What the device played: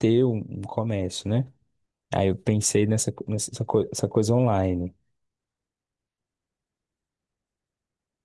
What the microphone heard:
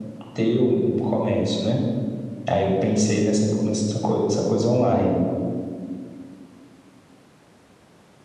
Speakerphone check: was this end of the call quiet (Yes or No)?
Yes